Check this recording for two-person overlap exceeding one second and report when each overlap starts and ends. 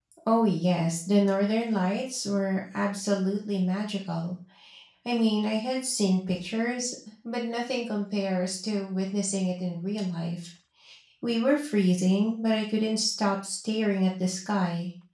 none

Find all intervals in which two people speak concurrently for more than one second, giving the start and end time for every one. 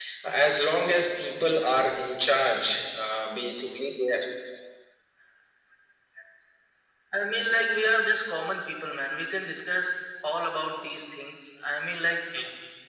none

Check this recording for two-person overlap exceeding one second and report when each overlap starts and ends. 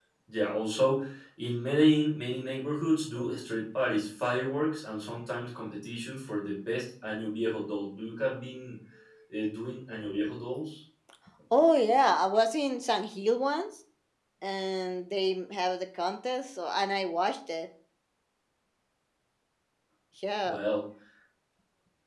none

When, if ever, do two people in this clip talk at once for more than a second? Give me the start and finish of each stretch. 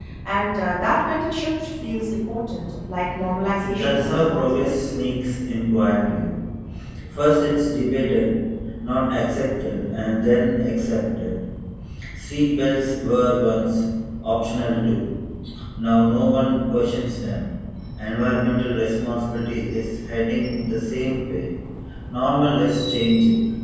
3.7-5.0

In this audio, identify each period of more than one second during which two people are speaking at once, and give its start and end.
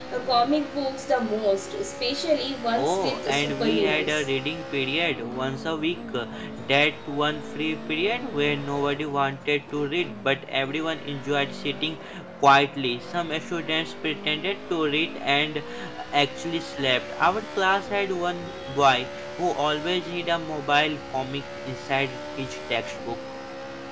2.8-4.3

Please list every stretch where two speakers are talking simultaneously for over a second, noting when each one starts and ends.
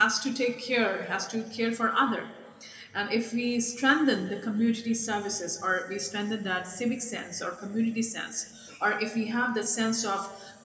none

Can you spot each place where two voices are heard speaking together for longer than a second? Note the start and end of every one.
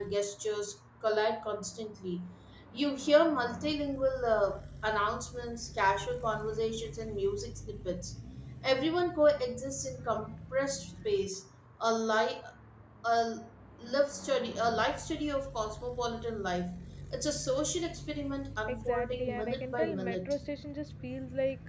18.7-20.3

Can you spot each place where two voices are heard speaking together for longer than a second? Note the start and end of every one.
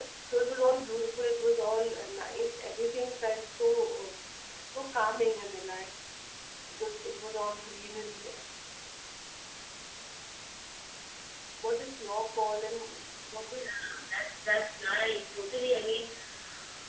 none

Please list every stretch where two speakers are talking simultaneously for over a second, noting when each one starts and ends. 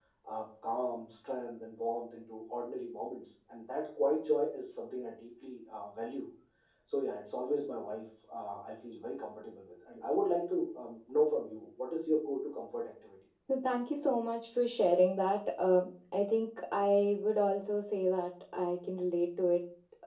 none

